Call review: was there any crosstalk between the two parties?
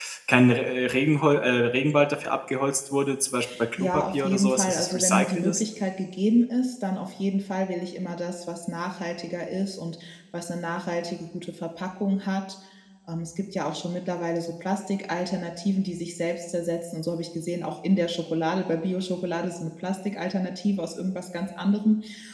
Yes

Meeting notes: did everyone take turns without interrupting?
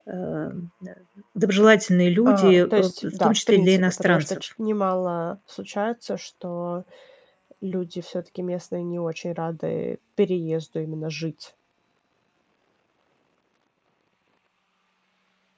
No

